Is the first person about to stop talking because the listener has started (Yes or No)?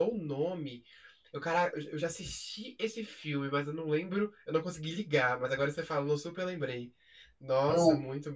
Yes